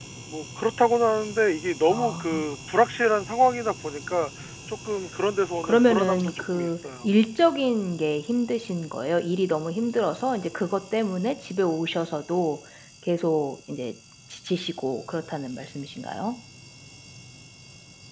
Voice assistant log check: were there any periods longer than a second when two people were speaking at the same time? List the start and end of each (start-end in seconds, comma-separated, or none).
5.6-7.1